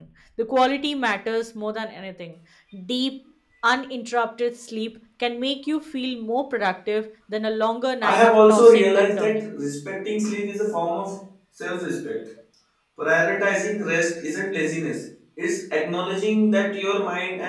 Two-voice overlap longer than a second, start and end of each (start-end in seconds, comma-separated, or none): 8.0-9.5